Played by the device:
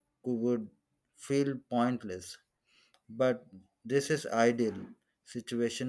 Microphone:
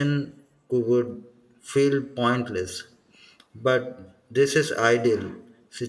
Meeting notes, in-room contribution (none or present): none